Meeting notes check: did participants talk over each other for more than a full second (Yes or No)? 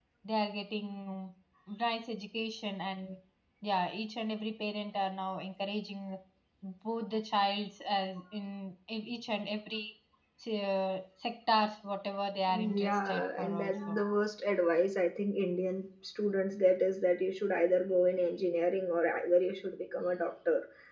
Yes